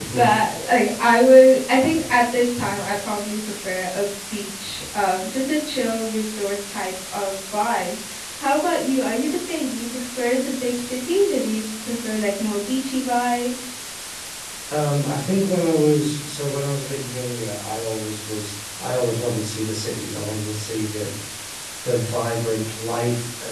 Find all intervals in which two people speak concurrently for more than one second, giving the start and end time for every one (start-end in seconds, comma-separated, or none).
none